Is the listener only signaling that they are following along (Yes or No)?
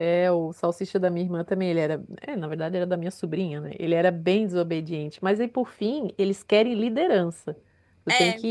Yes